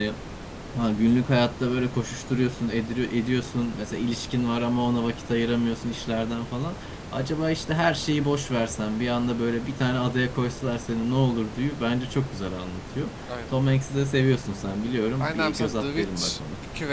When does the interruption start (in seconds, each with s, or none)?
15.2 s